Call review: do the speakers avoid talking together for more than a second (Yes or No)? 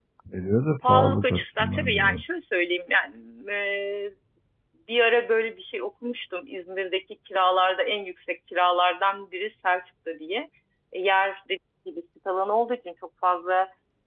No